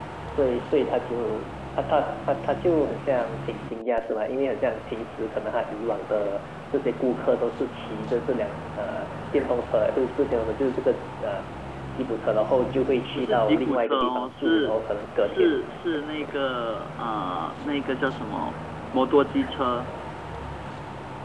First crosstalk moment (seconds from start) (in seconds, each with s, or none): 13.1 s